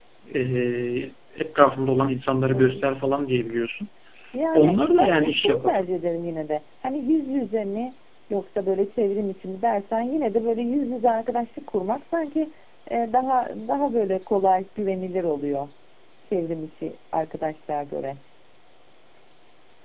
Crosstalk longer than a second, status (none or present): present